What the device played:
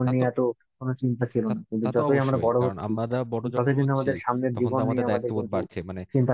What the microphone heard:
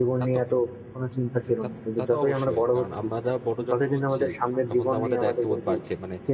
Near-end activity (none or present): none